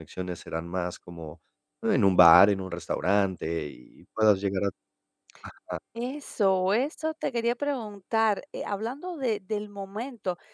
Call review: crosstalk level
none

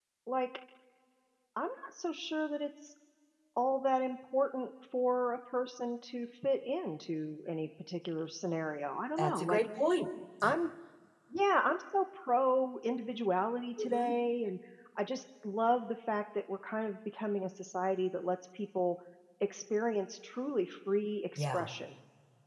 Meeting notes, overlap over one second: none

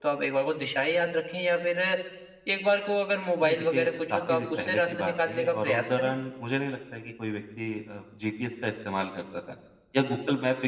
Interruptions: present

